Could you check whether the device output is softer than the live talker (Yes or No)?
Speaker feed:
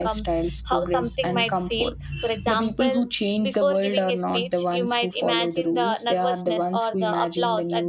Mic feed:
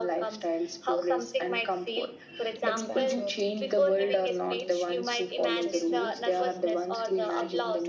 No